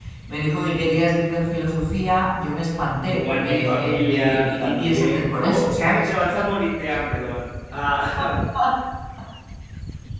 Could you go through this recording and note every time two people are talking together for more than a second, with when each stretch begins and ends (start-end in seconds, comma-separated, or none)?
3.0-6.1